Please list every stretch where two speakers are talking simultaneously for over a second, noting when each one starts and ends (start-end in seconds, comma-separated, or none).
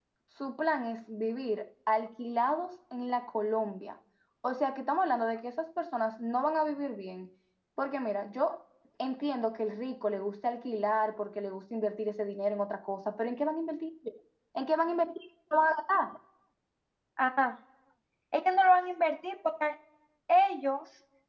none